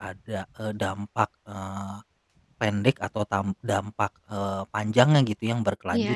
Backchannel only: Yes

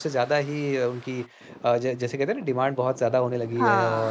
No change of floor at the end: Yes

